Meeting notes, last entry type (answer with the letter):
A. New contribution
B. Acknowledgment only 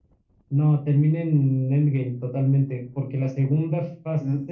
A